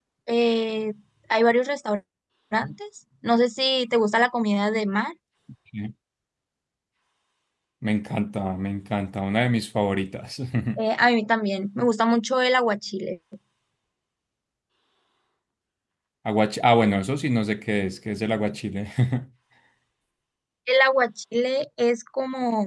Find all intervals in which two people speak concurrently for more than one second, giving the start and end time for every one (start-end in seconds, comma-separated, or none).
none